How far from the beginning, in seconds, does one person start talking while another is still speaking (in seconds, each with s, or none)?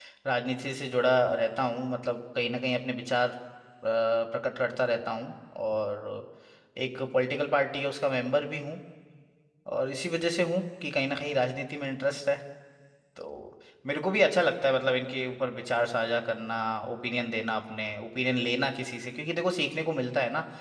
none